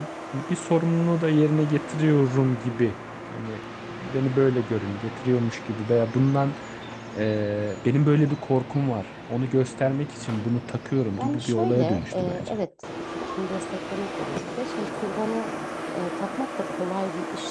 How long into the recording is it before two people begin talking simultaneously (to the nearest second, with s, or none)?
11 s